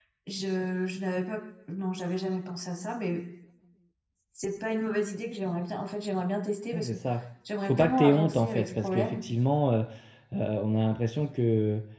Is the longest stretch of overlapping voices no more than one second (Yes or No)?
No